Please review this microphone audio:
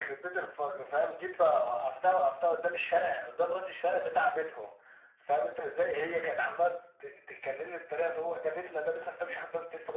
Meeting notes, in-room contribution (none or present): none